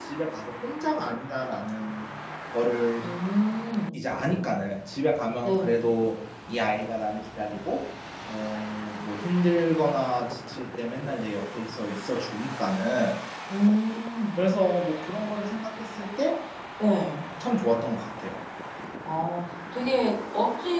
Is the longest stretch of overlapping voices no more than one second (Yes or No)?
Yes